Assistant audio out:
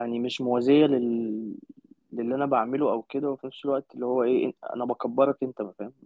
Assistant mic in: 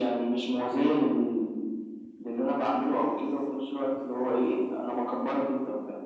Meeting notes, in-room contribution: none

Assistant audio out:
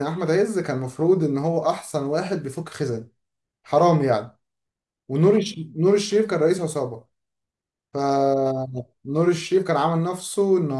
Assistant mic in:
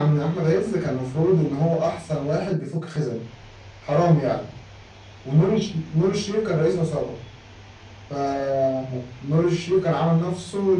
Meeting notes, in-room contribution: none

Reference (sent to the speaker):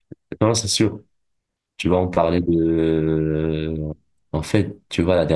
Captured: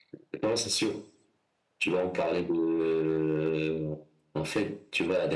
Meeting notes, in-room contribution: none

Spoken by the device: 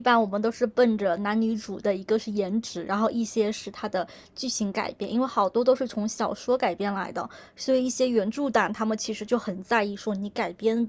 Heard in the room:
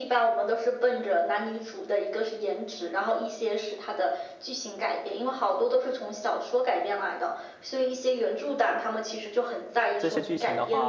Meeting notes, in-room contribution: present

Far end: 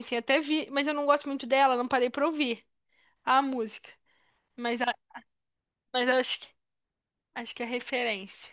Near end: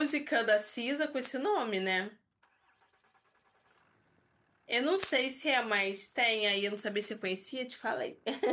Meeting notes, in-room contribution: present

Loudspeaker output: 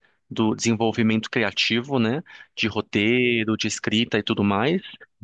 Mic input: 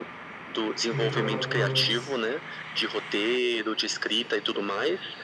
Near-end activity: present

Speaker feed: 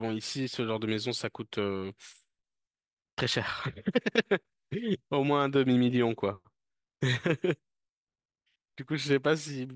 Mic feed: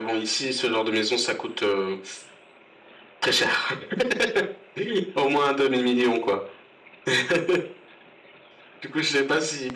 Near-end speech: none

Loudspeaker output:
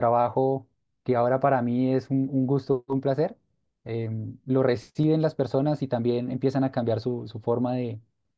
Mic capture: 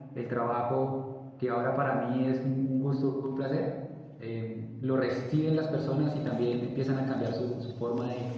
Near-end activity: none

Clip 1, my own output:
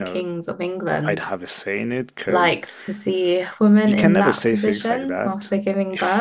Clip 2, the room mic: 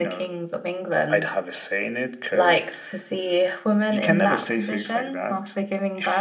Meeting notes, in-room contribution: none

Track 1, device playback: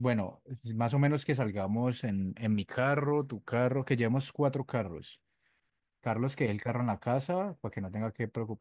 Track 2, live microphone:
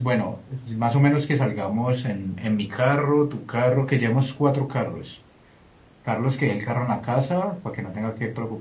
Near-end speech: none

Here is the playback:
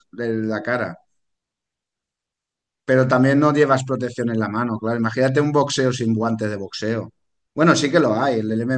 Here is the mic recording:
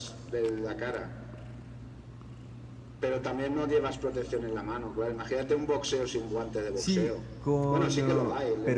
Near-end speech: present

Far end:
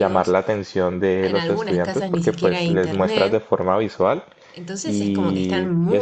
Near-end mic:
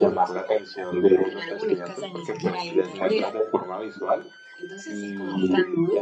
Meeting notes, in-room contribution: none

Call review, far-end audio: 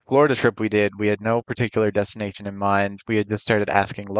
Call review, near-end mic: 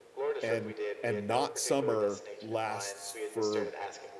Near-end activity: present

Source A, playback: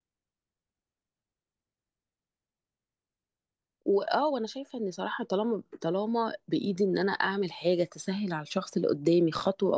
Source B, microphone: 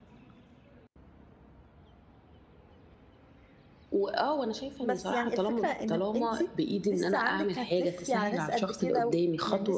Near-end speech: present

